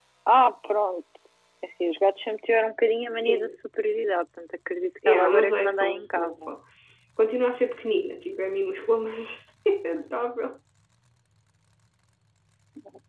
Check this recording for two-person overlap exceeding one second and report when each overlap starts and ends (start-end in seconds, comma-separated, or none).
5.1-6.5